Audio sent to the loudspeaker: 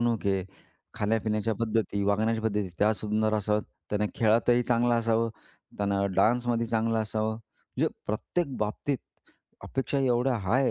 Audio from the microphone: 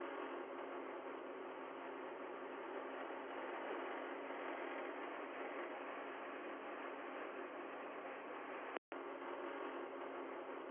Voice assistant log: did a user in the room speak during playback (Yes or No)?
No